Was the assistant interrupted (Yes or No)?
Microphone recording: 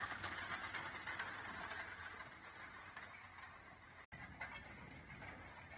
No